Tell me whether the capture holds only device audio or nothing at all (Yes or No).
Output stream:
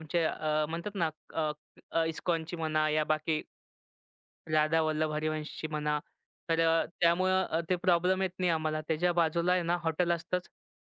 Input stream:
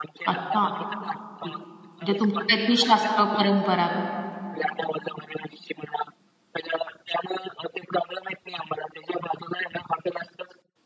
No